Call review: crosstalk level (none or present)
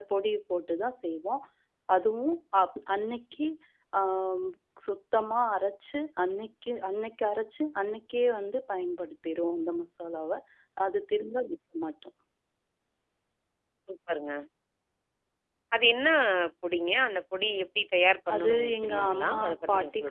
present